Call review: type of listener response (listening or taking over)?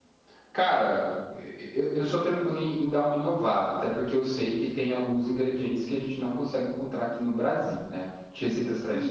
taking over